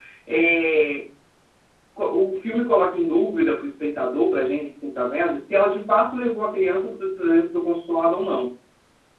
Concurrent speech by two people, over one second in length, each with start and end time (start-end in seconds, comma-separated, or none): none